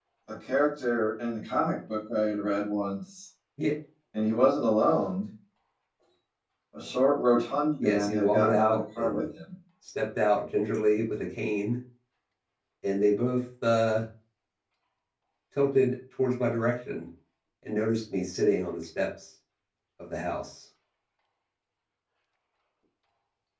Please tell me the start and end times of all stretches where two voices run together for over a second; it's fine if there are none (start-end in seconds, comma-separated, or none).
7.8-9.2